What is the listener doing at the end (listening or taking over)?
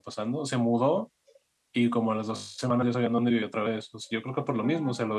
listening